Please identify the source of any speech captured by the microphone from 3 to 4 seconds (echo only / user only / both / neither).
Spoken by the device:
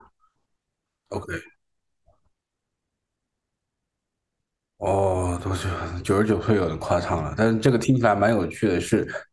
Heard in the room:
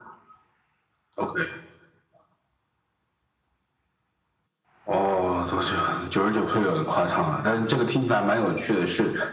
neither